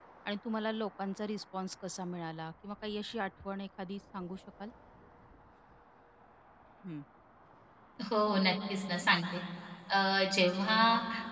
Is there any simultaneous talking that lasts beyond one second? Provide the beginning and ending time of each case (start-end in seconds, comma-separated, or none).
none